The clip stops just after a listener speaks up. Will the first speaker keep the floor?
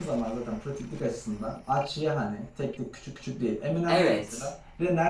Yes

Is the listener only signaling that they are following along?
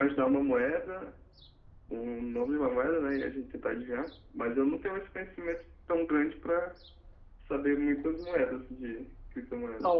No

